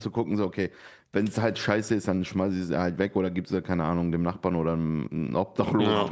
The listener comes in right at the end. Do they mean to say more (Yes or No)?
No